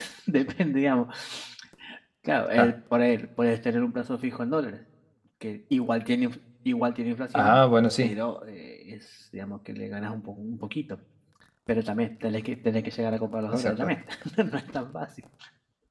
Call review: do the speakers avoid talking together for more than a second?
Yes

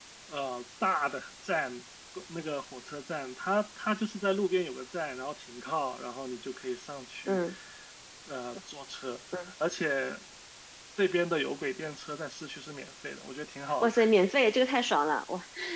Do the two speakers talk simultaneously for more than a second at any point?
No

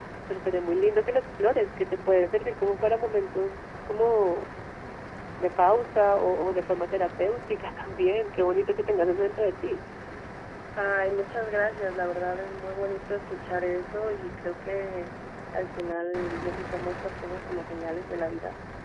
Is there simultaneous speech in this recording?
No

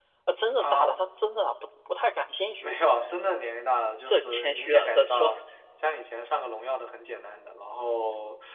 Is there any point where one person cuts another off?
Yes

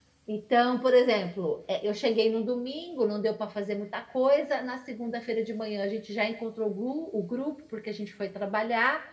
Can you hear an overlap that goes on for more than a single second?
No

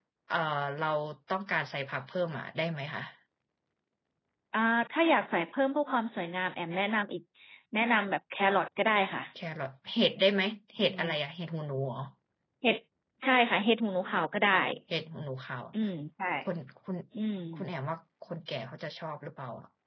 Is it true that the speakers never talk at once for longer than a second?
Yes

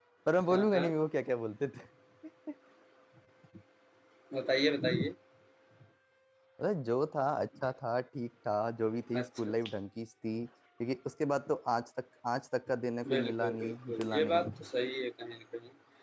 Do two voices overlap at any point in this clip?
Yes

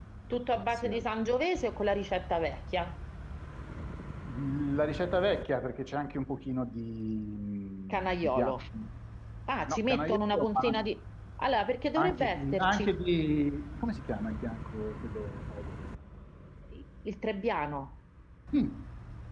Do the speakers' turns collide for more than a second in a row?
Yes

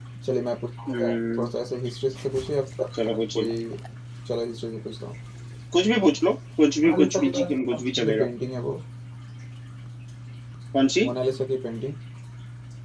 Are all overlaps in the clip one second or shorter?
No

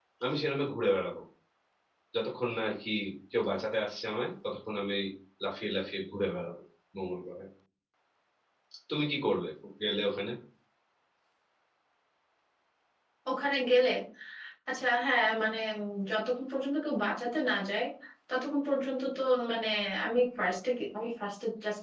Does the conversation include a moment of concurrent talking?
No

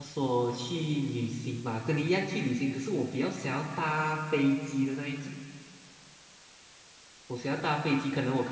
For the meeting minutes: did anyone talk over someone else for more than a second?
No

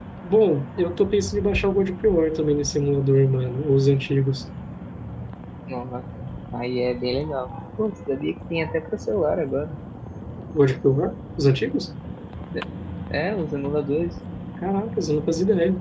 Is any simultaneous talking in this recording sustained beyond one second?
No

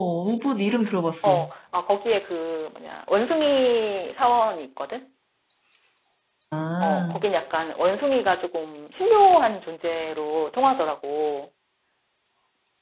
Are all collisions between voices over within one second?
Yes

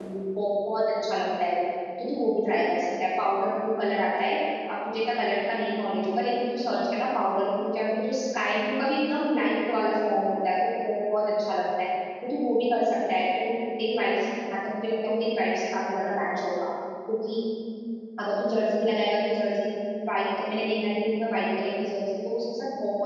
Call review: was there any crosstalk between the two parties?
No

